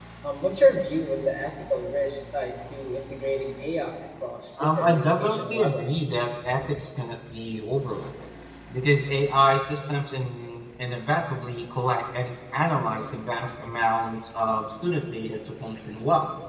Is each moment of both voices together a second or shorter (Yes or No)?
No